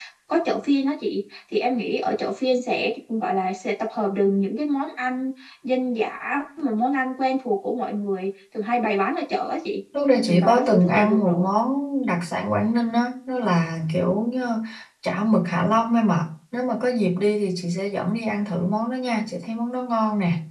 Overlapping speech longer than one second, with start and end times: 10.2-11.5

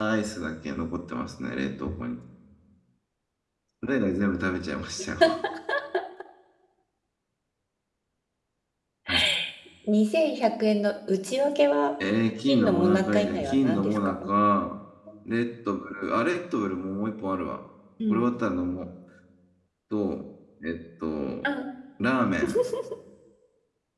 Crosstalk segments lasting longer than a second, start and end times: 12.5-14.1

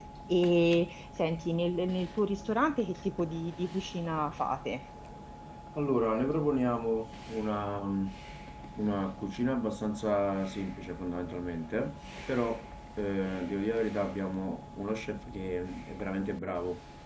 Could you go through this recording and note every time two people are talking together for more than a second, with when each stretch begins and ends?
none

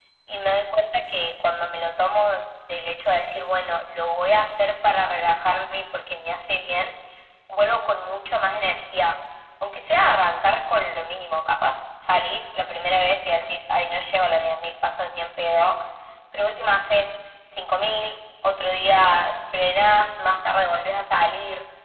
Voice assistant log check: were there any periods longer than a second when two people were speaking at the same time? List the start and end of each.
none

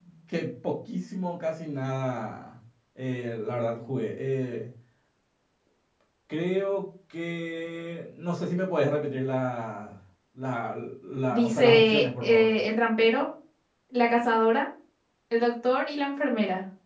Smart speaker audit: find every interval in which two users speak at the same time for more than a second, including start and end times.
11.3-12.5

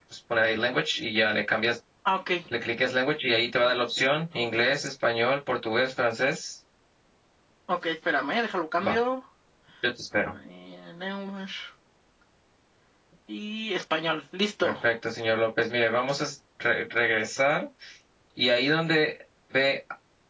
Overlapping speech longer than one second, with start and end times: none

